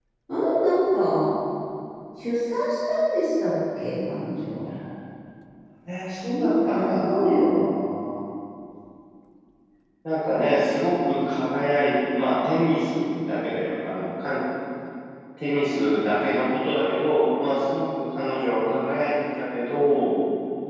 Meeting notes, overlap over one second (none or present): present